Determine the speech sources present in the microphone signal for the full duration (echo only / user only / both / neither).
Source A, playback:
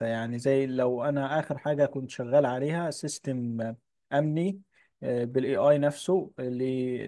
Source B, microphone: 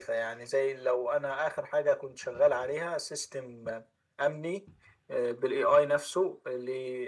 echo only